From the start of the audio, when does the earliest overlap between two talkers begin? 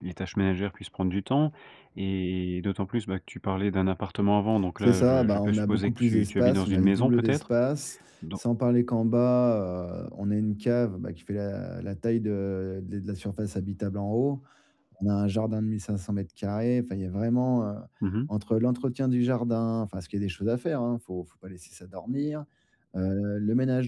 4.8 s

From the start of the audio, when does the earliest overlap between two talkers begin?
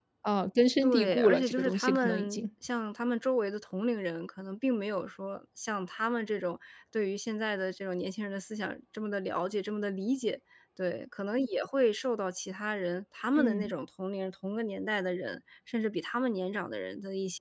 0.8 s

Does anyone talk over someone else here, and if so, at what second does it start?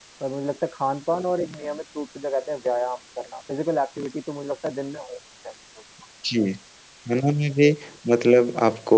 none

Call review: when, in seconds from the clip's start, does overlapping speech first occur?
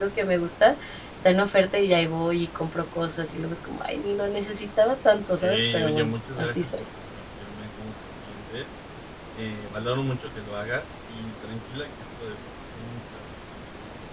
5.1 s

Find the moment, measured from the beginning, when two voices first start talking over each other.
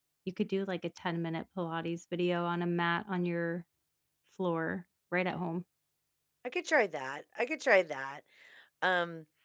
none

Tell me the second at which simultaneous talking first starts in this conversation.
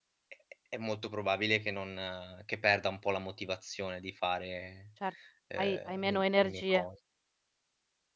5.6 s

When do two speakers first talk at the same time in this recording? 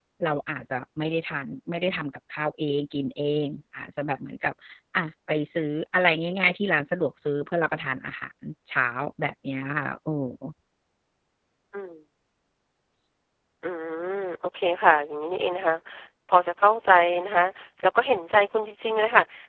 none

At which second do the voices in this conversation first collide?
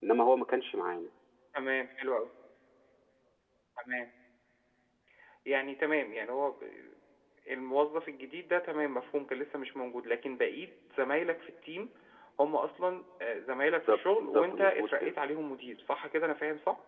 13.9 s

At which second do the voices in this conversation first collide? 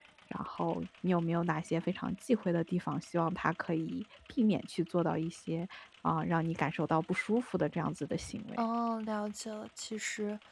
none

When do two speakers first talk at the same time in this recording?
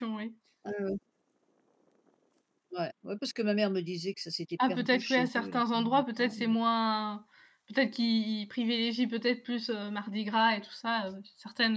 4.6 s

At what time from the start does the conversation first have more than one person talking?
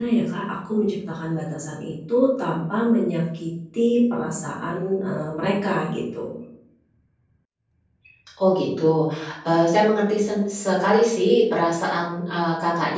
none

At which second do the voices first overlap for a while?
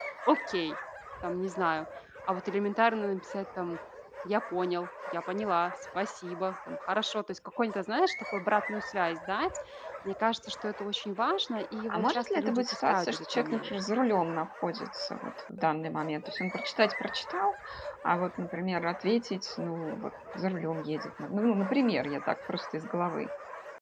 11.9 s

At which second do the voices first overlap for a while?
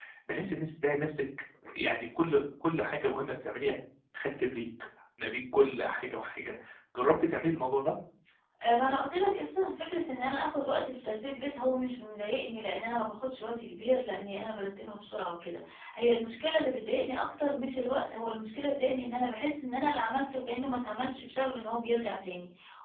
none

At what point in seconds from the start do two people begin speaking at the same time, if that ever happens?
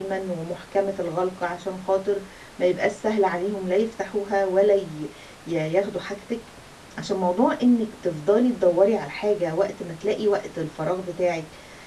none

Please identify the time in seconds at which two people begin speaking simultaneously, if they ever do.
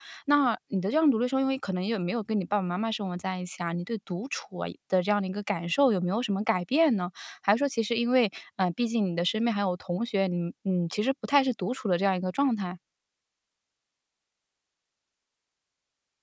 none

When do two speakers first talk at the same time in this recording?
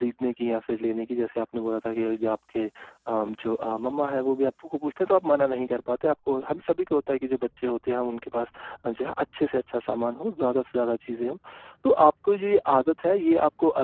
none

